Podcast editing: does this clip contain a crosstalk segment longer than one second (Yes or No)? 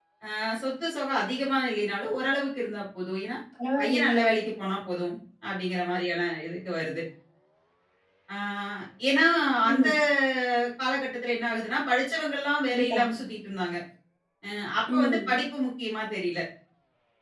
No